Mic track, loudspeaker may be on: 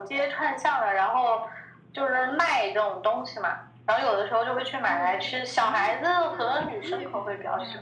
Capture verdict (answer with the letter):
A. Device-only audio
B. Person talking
B